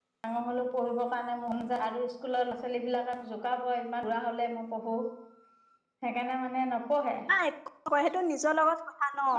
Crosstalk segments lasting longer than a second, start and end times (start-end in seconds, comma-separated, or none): none